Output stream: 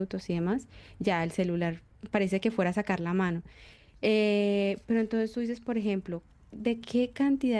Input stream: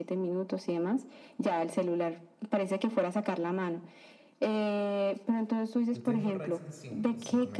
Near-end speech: present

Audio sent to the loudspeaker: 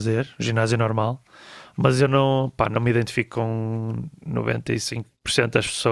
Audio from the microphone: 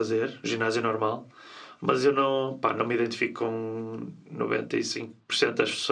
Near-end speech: none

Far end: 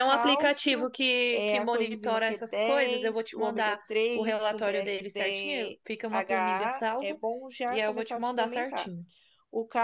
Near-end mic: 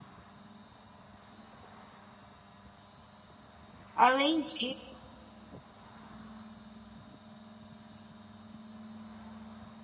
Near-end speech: present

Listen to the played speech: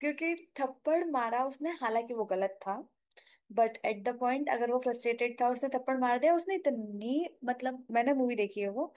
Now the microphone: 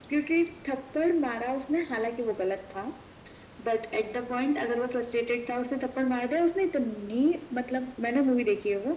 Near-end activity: none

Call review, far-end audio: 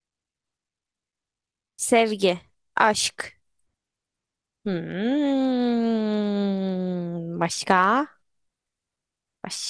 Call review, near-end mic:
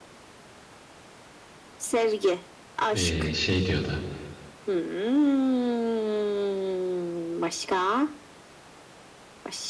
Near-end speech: present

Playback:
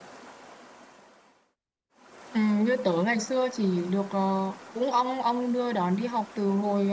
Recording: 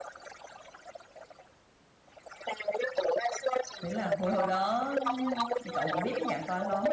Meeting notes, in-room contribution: present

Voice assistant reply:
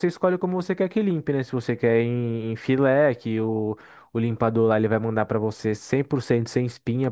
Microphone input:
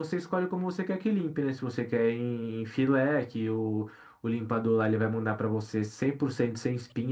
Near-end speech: none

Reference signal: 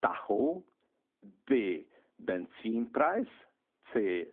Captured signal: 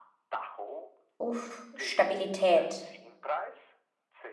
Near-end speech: present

